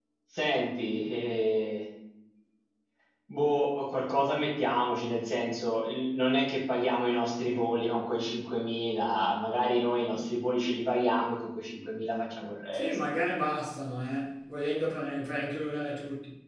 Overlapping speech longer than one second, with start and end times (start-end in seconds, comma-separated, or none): none